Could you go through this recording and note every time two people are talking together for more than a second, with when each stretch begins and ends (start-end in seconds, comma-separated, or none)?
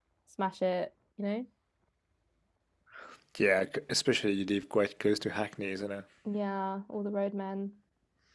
none